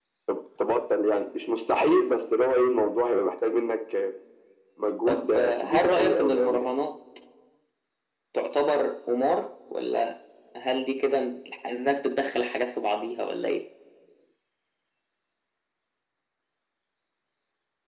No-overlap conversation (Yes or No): No